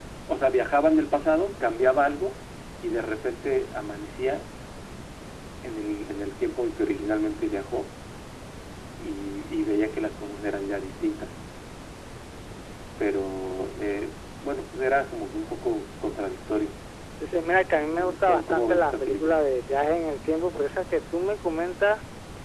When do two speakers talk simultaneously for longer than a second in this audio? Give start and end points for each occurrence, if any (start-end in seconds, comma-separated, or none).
17.7-19.4